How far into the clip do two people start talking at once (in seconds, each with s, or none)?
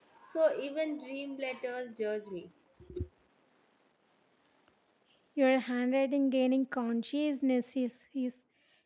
none